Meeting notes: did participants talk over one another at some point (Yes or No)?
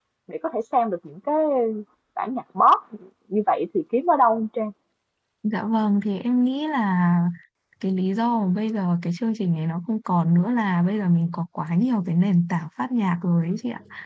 No